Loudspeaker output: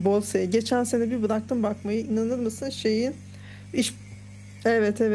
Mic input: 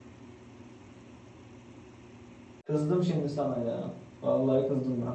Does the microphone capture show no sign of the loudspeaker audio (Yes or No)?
Yes